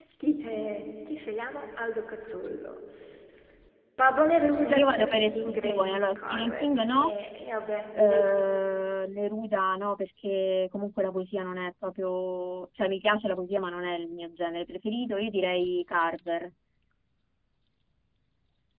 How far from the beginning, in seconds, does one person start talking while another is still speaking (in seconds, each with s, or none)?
4.7 s